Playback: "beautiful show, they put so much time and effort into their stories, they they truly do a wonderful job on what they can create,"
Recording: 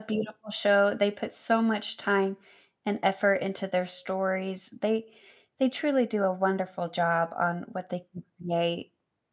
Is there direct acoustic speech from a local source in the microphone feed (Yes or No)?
No